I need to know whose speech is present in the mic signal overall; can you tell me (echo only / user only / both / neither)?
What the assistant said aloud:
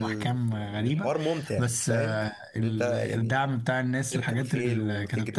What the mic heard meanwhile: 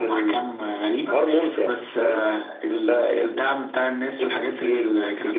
echo only